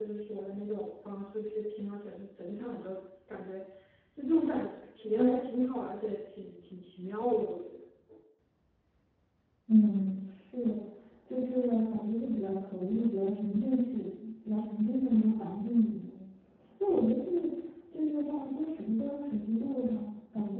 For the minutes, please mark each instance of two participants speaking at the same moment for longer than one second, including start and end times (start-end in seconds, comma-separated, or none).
none